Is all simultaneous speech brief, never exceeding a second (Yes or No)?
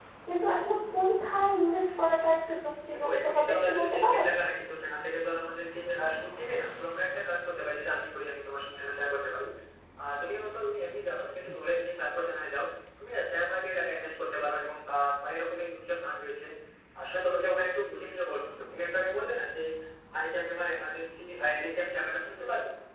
No